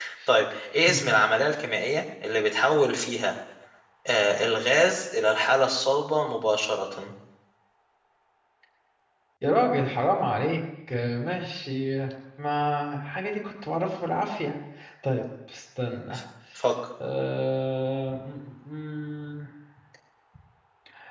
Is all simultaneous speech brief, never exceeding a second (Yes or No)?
Yes